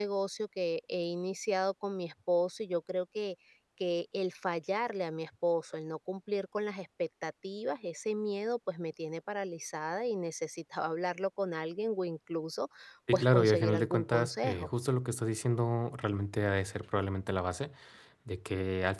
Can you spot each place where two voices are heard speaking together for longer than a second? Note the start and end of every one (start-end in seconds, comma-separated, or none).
13.1-14.7